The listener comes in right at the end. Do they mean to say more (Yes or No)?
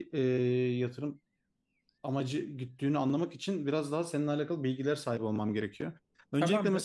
No